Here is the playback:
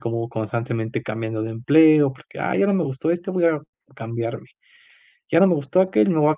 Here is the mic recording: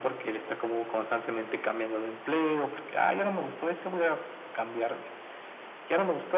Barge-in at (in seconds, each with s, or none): none